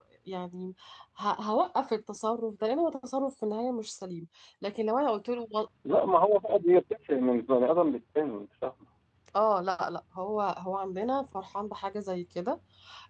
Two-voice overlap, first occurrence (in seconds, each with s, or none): none